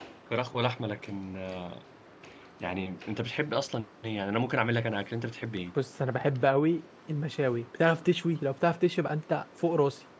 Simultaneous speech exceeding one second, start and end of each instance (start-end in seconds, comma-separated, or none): none